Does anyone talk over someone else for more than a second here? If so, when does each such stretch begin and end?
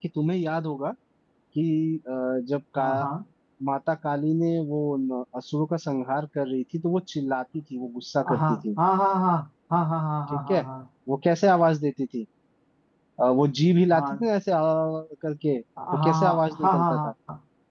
15.9-17.1

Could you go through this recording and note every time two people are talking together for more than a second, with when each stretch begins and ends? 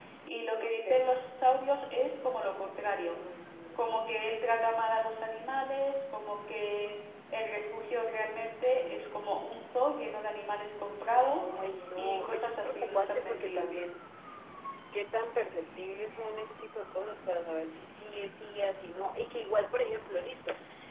12.0-13.7

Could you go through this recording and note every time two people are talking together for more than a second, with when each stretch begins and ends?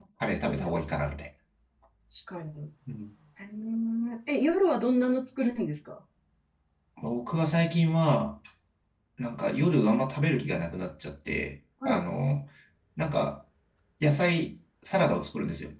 none

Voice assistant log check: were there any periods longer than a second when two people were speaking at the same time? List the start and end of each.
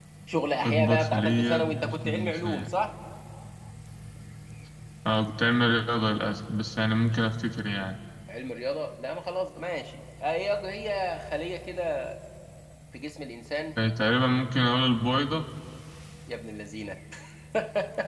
0.6-2.7

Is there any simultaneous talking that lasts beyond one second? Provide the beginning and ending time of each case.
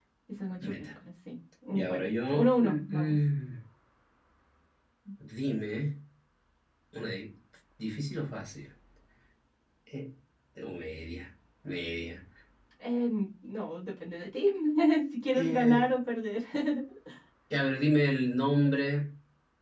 1.7-3.2

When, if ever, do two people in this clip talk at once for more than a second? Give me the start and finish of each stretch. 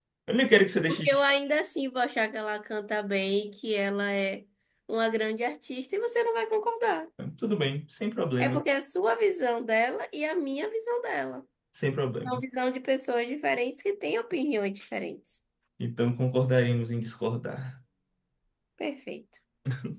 none

